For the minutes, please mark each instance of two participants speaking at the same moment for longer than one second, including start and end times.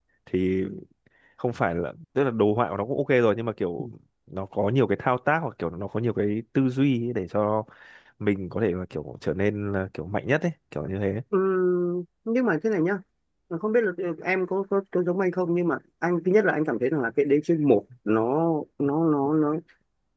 none

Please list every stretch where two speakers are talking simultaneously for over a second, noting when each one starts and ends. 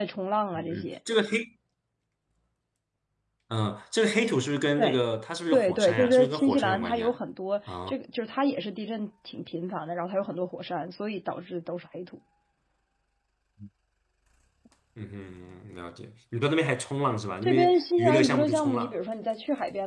5.5-7.1, 17.4-18.9

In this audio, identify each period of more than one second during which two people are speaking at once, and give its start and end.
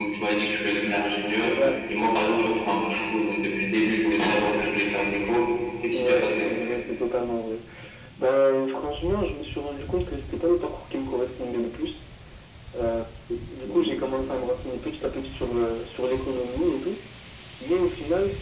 none

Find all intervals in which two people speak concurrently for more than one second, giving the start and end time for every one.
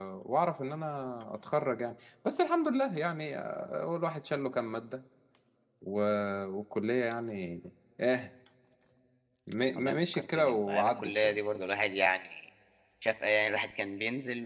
9.8-11.4

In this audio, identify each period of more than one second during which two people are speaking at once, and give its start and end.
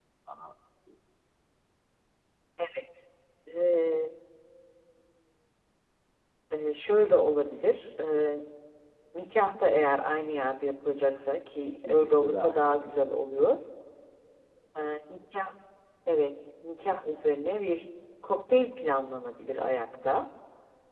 11.6-13.0

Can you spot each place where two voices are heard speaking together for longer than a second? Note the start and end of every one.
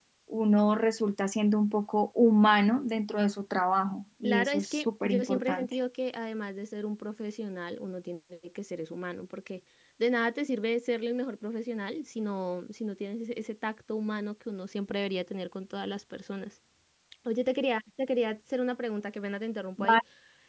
4.2-5.8

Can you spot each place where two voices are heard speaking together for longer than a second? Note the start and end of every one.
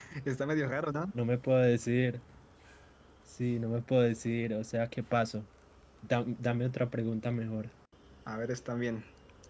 none

